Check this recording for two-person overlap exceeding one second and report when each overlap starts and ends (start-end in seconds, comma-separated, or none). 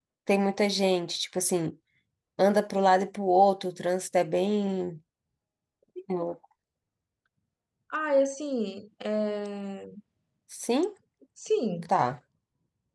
none